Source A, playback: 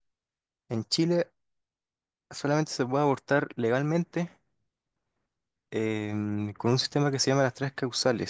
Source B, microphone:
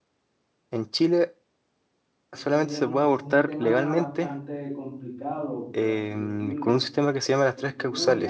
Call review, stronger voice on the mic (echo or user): echo